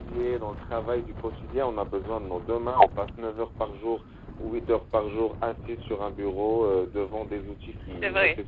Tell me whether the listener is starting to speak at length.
No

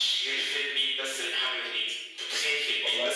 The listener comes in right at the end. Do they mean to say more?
No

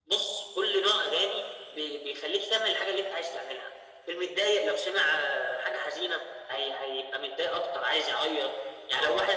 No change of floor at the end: Yes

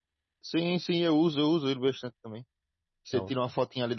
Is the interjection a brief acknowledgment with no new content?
Yes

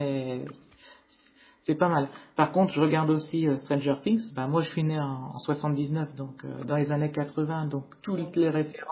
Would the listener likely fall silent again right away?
Yes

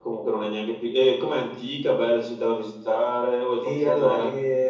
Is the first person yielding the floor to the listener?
Yes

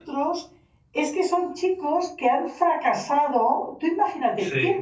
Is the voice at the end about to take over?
No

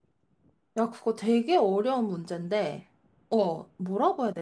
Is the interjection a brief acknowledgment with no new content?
Yes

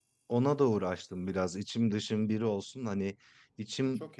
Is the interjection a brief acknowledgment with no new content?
Yes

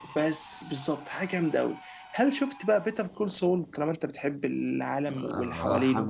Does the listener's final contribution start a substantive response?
Yes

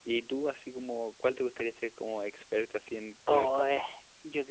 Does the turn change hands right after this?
Yes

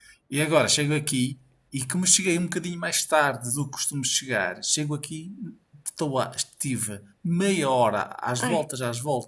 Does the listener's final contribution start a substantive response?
No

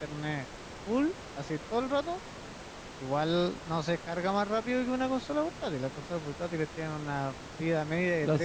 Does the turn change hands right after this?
Yes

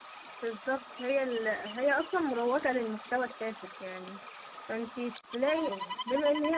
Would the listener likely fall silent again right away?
Yes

